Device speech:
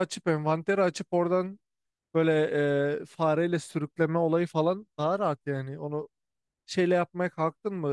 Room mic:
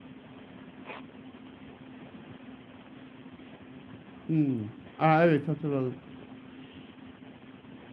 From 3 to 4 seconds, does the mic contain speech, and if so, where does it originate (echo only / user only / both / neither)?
neither